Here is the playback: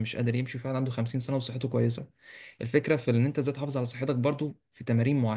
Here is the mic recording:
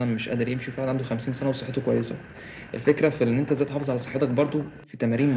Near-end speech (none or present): none